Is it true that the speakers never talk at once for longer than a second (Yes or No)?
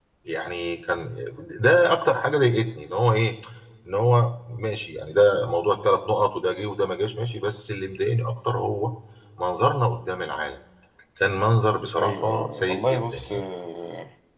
No